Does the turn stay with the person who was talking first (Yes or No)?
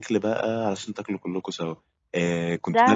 Yes